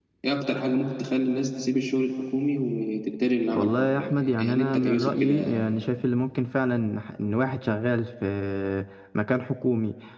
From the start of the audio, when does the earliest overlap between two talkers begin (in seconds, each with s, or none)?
3.5 s